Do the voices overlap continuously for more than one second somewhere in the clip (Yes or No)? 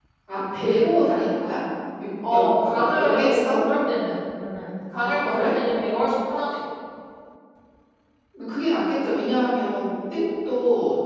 Yes